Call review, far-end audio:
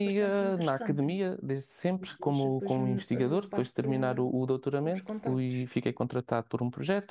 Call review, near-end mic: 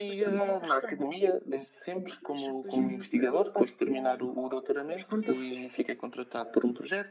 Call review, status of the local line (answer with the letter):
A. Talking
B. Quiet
B